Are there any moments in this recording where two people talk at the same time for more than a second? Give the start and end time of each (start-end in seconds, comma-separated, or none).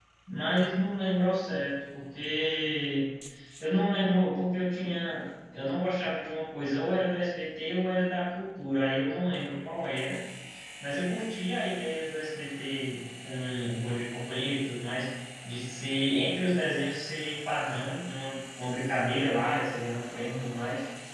none